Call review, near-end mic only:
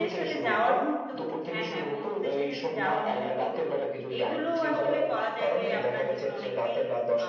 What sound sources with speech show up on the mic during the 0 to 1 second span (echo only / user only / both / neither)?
both